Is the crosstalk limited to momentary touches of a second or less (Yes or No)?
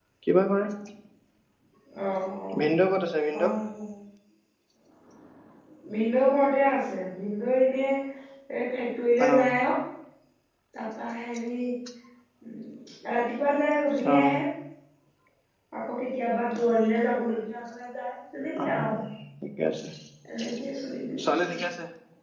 Yes